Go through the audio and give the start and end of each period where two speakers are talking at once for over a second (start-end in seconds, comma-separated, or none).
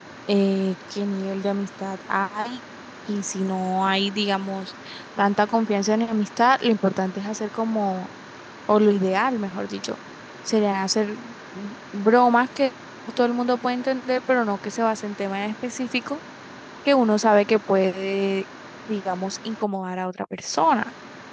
none